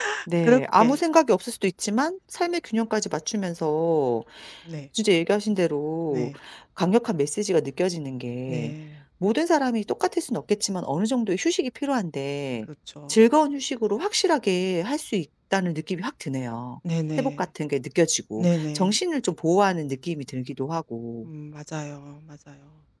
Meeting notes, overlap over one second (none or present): none